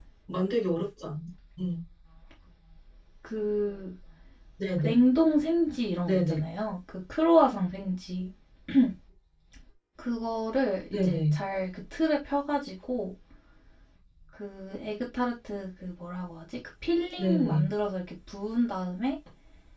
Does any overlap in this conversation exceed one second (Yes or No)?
No